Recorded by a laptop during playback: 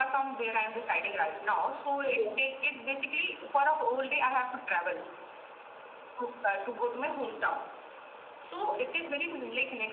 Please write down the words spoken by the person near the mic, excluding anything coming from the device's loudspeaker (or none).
Oh, yes.